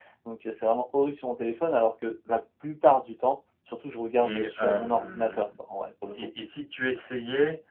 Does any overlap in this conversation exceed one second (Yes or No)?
Yes